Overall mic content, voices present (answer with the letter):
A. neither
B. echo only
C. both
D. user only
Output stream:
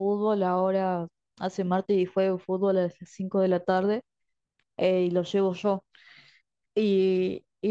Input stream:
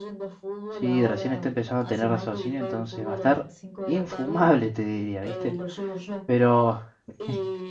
C